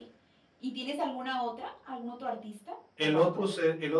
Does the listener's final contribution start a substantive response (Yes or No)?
Yes